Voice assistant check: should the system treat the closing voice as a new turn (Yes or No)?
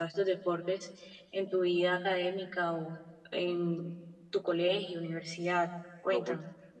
Yes